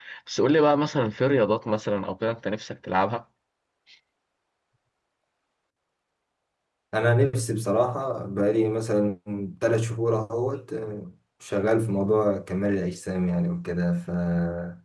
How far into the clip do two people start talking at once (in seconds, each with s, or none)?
none